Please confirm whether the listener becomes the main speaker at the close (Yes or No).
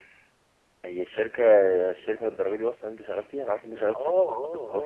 Yes